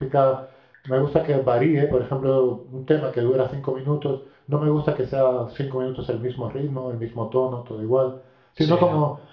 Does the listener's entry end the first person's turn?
No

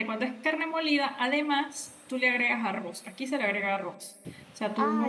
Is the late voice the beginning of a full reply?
No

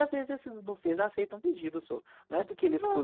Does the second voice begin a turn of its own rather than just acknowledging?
No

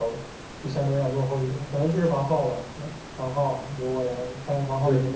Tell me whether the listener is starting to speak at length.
Yes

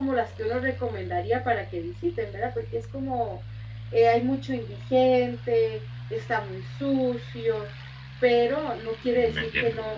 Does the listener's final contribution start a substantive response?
No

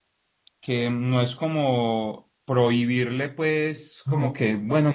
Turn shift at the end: No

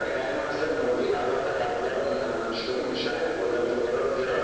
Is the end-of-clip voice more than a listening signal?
Yes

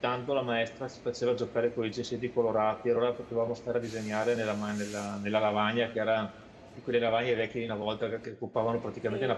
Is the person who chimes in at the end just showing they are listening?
No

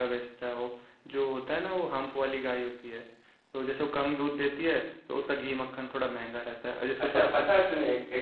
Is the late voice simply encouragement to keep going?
No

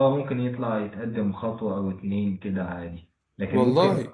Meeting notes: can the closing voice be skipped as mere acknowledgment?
Yes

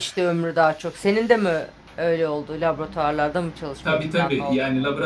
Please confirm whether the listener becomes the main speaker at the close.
Yes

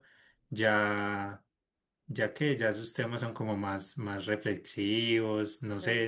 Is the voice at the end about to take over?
Yes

